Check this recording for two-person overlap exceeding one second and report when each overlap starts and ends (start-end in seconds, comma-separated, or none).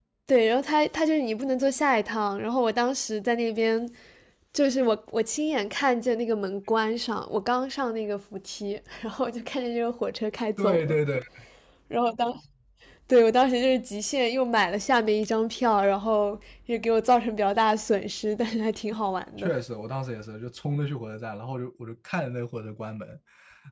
none